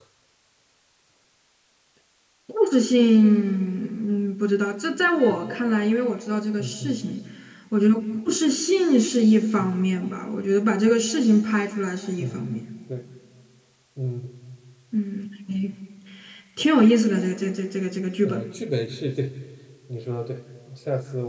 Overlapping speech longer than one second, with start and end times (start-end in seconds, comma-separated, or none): none